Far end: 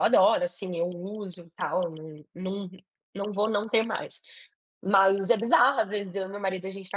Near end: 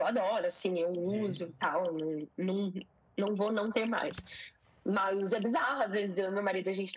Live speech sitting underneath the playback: Yes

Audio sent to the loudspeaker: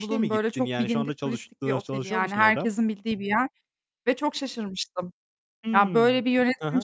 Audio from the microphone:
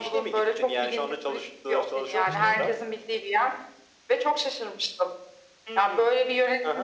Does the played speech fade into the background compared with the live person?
No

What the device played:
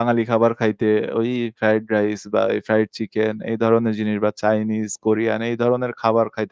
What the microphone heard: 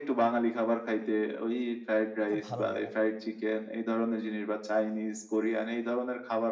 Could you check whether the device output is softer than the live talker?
No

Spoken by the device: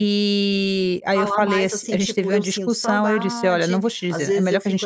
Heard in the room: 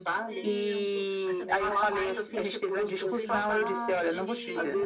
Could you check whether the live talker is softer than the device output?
Yes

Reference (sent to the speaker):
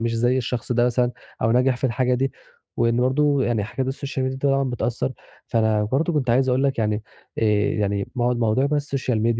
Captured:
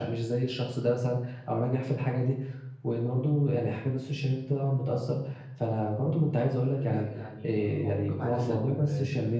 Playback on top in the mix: Yes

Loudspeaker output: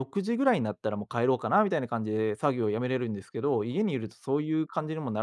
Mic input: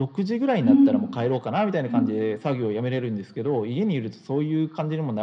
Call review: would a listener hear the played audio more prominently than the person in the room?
No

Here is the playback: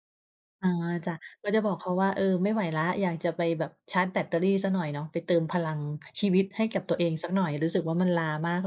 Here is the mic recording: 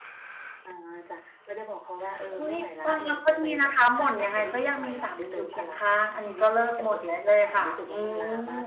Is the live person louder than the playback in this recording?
Yes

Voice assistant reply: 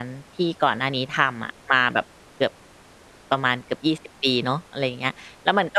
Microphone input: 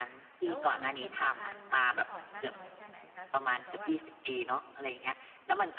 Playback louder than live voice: Yes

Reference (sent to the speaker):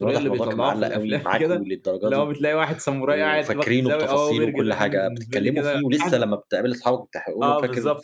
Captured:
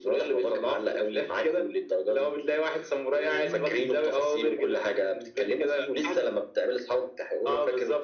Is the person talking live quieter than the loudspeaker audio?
Yes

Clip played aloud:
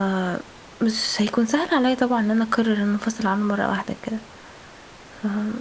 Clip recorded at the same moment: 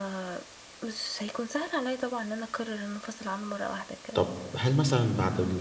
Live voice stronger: Yes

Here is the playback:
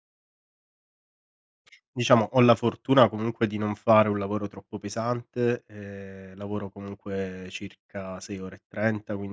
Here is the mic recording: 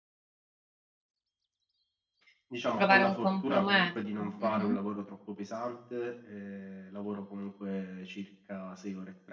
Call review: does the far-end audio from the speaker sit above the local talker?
No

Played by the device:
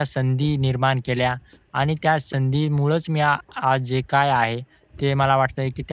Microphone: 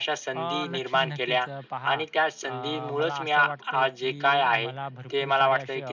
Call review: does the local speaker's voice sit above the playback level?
No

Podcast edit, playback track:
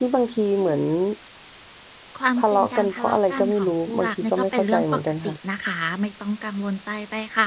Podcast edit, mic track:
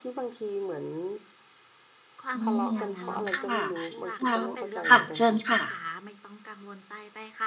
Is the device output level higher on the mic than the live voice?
No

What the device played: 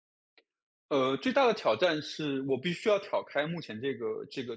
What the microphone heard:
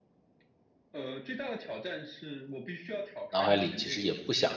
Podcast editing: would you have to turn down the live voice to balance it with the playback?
Yes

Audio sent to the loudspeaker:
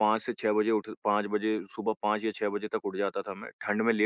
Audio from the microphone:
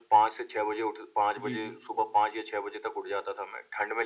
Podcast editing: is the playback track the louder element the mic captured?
Yes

